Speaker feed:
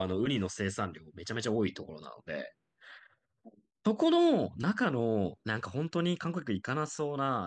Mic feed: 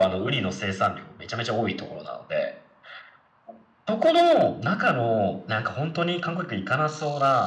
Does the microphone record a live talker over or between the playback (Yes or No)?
No